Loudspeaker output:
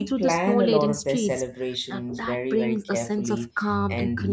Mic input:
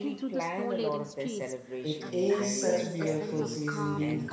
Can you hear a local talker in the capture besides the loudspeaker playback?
Yes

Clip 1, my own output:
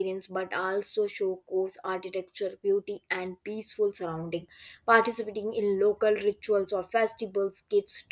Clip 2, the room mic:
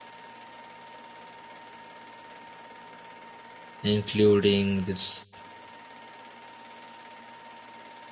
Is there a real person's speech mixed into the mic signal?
Yes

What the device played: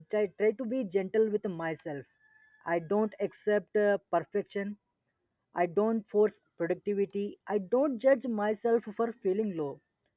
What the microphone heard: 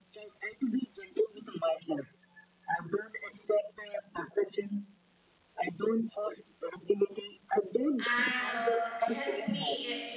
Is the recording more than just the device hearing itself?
Yes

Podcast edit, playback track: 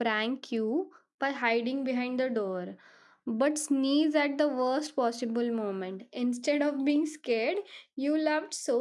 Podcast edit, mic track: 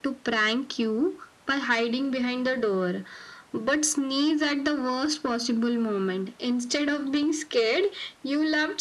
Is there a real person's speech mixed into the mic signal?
No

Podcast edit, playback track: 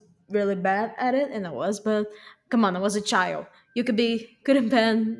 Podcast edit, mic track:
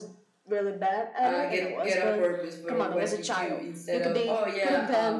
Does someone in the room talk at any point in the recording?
Yes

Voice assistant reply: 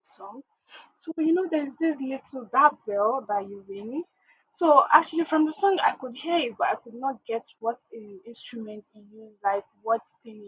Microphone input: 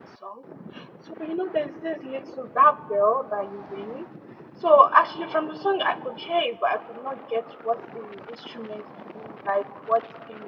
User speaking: No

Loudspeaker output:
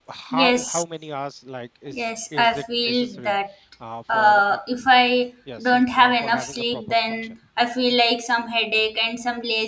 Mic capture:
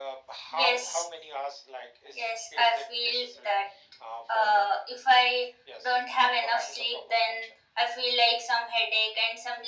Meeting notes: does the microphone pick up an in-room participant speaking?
No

